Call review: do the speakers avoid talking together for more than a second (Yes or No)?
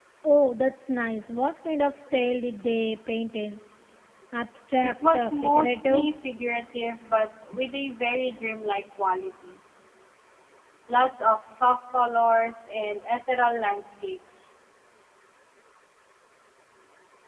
No